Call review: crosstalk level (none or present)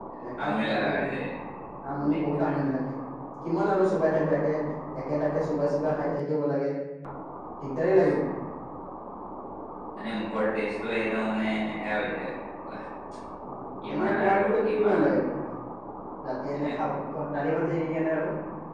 present